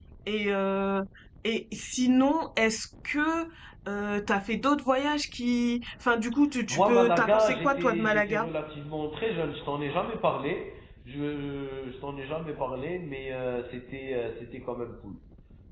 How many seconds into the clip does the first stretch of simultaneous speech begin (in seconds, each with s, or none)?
6.7 s